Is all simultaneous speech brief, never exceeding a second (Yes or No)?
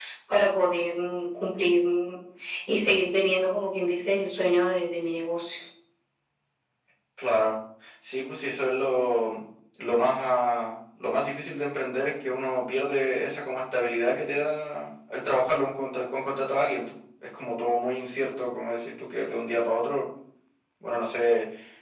Yes